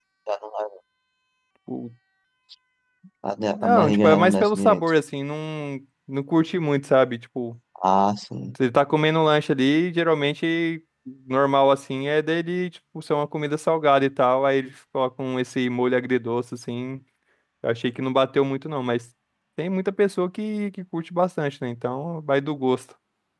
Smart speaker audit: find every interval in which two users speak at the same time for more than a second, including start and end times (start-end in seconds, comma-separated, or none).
3.6-4.9